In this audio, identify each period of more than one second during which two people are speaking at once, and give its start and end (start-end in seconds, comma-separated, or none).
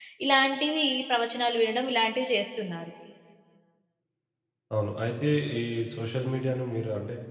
none